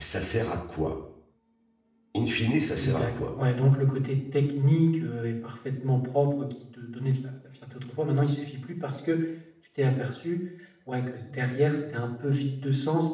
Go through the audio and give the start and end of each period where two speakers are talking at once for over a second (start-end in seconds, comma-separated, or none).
none